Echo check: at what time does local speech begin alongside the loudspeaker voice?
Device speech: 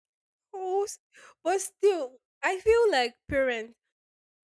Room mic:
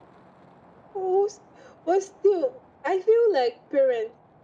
none

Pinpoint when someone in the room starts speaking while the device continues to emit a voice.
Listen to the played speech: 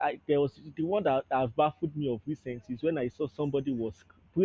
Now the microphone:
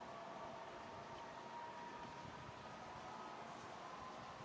none

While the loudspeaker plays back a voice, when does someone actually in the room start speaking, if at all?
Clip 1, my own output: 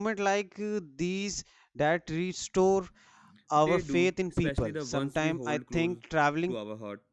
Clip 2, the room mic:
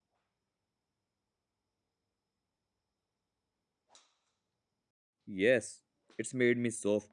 5.2 s

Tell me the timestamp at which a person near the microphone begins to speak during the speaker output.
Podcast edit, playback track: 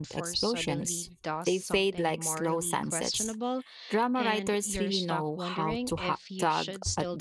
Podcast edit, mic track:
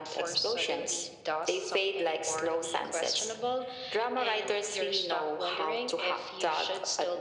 none

